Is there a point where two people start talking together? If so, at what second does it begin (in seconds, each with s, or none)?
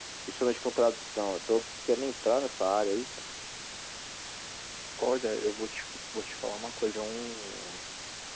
none